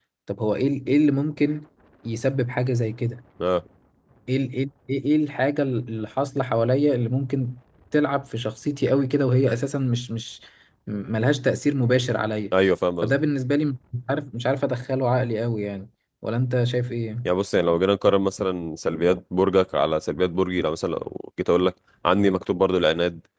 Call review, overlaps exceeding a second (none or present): none